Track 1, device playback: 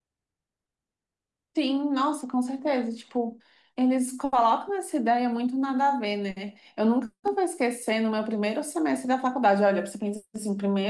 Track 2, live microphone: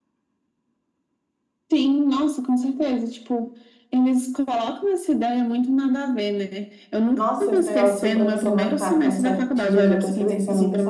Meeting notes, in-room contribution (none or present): present